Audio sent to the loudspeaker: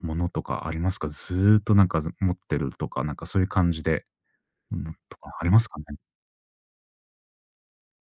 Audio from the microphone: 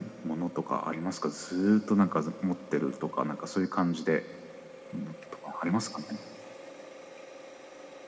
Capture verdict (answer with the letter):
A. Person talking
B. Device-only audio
B